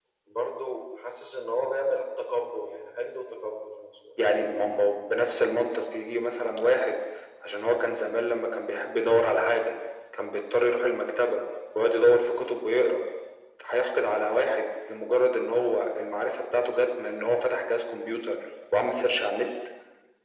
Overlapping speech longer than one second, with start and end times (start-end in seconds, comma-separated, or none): none